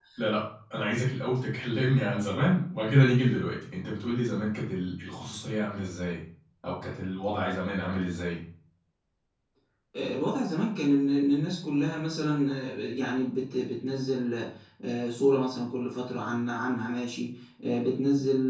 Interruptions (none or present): none